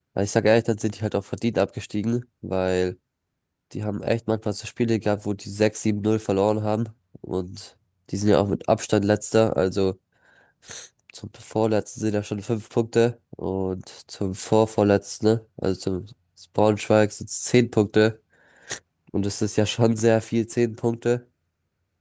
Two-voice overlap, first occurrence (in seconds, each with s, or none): none